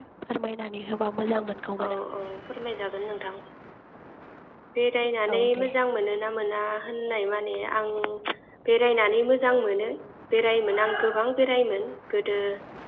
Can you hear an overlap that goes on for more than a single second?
No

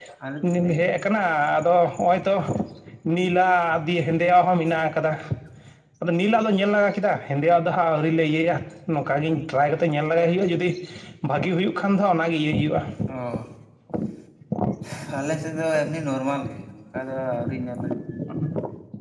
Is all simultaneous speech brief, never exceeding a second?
Yes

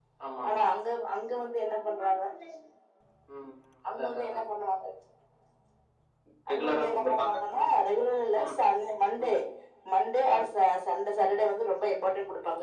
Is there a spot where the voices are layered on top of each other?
Yes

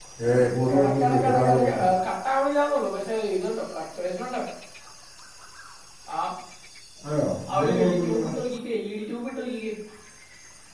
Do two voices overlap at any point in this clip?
Yes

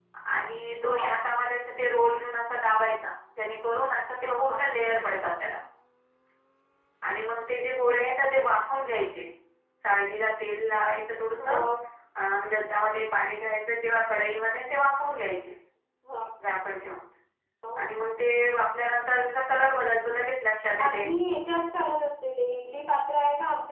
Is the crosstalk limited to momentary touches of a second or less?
Yes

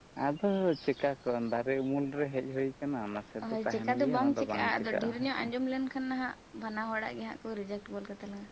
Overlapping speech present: Yes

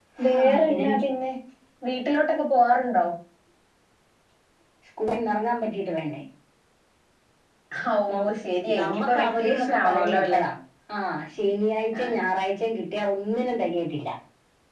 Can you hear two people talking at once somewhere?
Yes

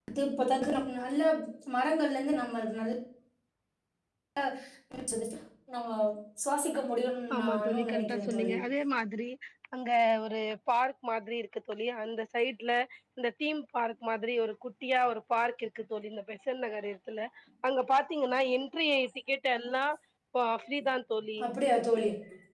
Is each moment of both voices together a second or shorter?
No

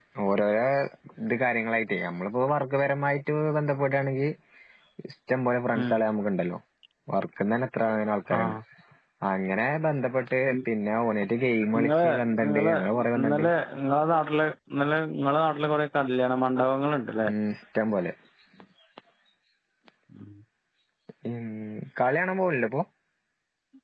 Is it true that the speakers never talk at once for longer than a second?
Yes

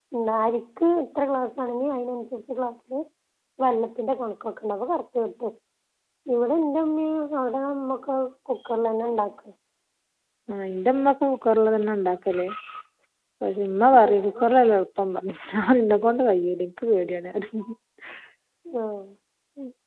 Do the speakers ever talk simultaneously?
No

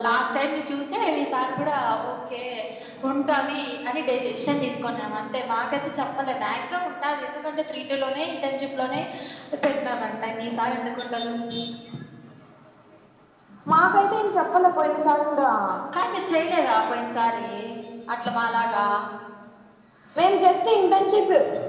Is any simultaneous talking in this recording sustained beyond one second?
No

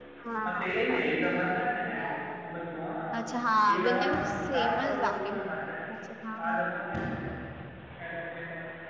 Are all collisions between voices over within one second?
No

